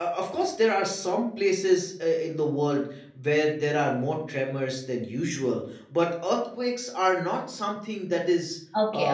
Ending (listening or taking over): taking over